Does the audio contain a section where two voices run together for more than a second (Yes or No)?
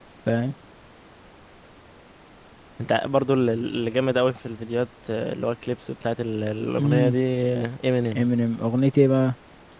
No